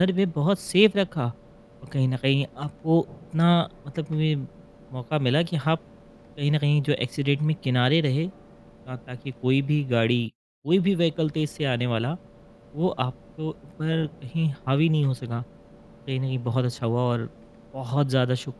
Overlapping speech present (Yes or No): No